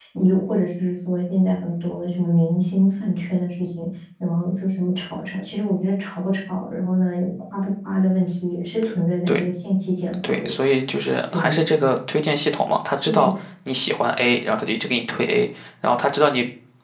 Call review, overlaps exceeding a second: none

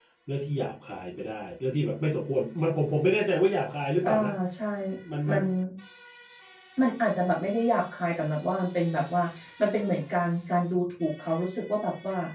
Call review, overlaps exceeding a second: none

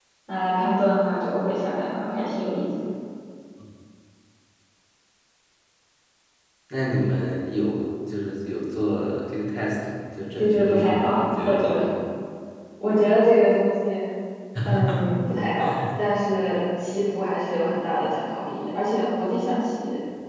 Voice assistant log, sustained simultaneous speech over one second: present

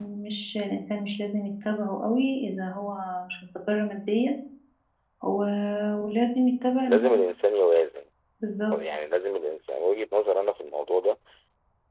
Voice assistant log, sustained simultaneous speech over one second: none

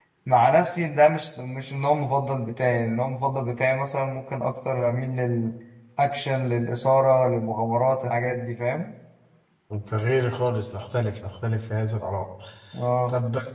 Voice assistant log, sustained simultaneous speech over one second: none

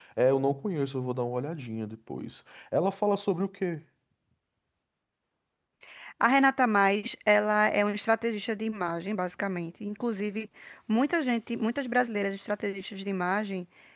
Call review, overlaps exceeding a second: none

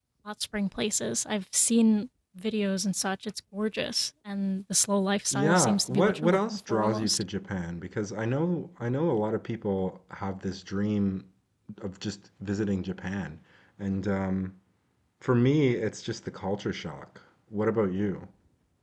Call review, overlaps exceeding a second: present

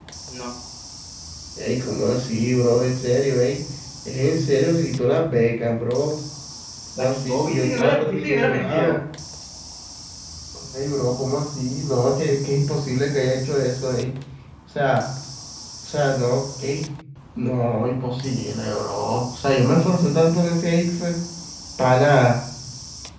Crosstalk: present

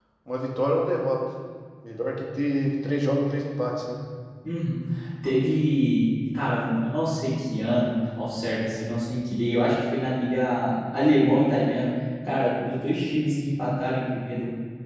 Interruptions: none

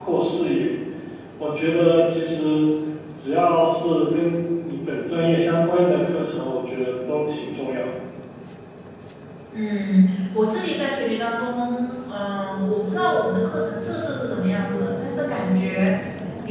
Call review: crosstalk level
none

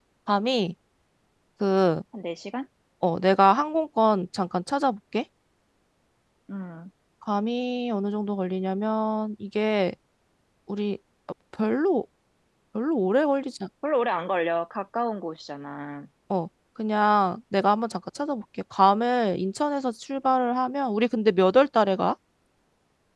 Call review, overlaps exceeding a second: none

